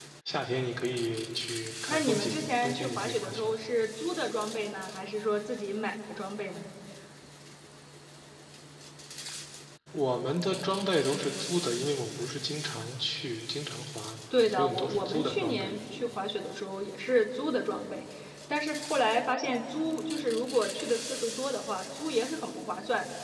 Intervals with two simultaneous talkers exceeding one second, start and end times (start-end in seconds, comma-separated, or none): 1.9-3.5, 14.5-15.8